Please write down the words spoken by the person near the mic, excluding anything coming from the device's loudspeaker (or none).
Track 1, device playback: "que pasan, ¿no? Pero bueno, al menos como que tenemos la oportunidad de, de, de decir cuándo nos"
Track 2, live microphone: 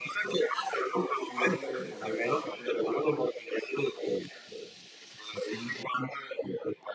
¿Tú de dónde eres? O sea, ¿de qué parte de la costa?